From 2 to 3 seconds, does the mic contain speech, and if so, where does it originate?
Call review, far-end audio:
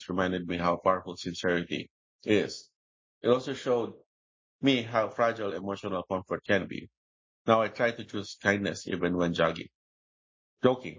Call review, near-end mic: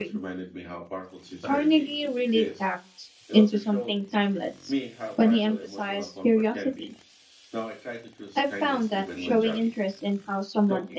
both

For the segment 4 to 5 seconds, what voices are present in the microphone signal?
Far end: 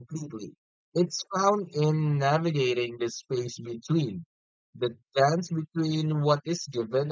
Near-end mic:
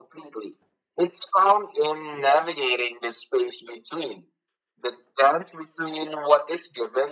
echo only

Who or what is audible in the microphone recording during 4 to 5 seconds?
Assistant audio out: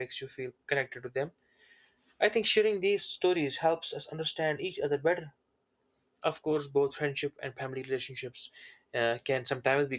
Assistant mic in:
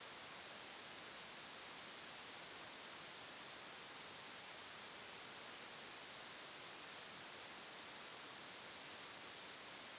neither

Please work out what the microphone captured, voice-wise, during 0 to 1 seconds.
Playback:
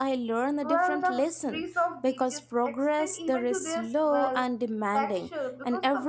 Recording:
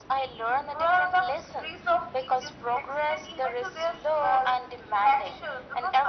echo only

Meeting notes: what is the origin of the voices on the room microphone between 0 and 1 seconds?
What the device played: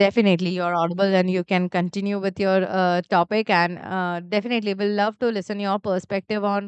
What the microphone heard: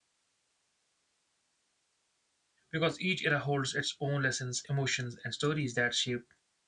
neither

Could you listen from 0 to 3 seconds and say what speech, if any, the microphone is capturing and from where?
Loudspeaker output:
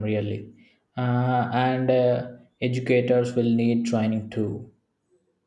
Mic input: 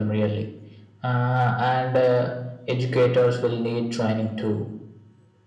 echo only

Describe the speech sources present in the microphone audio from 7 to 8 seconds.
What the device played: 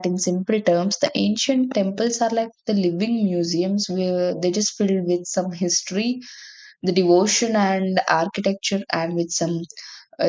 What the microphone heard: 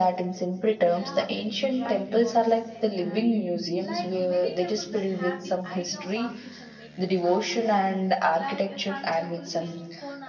both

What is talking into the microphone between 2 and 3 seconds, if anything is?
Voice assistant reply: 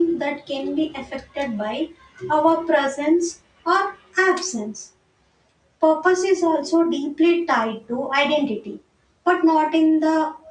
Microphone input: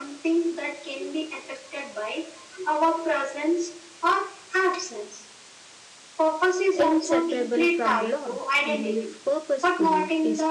echo only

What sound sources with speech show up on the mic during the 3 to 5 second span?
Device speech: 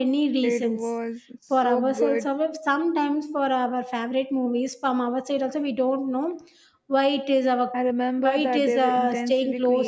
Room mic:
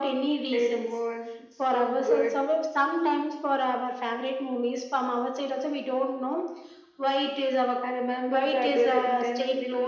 echo only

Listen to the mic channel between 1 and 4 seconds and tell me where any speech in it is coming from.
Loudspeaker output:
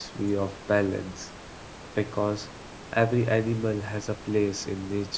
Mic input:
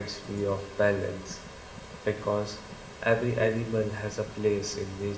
echo only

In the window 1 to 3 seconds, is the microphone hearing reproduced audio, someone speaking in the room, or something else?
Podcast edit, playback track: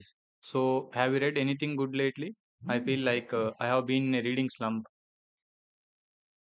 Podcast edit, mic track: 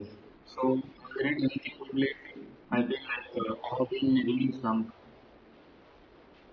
echo only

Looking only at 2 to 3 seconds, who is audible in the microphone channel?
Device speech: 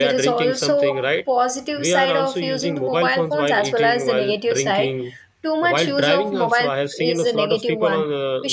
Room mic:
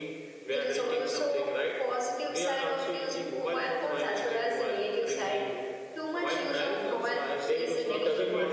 echo only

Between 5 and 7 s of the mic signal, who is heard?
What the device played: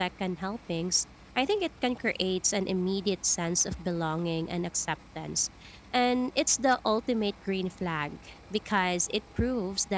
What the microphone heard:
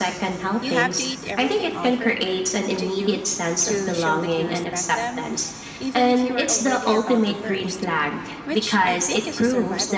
both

